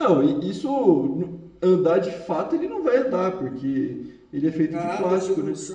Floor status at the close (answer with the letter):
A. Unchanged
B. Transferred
B